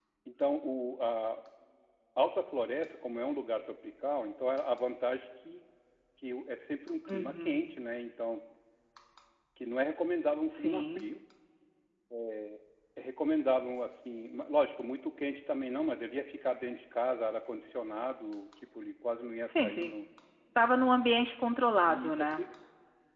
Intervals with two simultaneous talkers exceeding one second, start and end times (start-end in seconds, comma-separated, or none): none